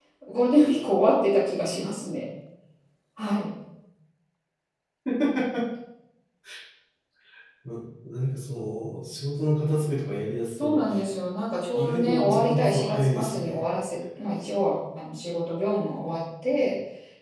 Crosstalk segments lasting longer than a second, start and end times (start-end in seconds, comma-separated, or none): 11.8-13.6